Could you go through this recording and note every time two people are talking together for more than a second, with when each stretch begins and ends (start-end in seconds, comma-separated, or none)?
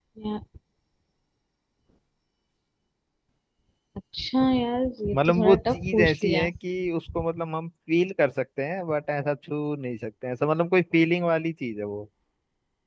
5.1-6.5